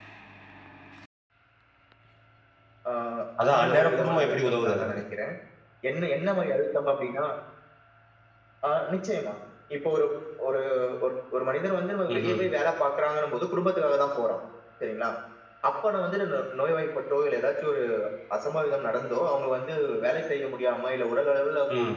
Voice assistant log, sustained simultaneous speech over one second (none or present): present